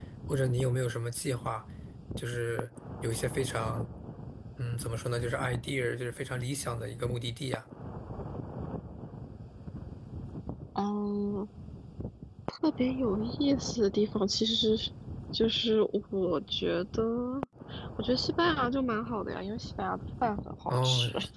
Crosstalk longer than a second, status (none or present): none